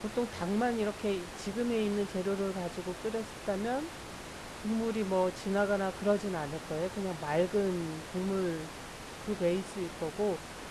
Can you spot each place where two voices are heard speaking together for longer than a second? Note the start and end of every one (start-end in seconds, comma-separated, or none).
none